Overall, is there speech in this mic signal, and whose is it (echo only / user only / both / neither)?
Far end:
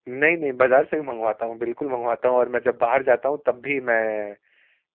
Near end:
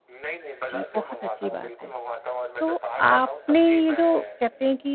both